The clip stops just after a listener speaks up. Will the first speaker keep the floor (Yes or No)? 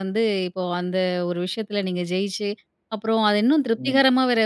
Yes